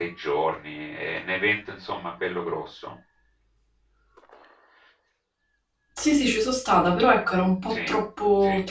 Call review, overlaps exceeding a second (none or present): none